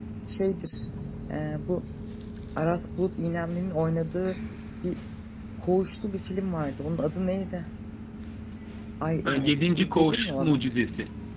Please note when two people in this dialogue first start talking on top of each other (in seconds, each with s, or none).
9.2 s